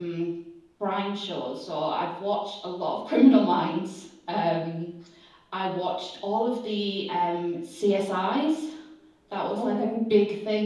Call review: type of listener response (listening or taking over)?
listening